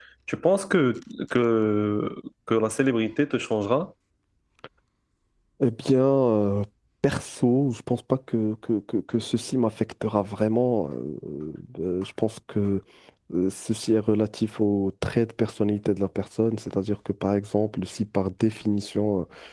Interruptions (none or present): none